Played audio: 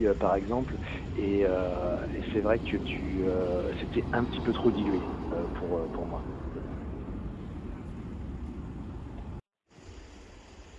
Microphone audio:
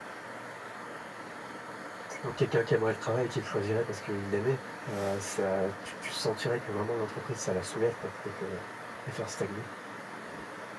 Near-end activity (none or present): present